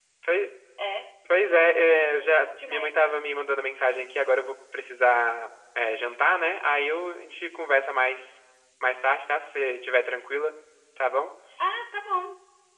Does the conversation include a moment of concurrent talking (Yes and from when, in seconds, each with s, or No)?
Yes, from 1.4 s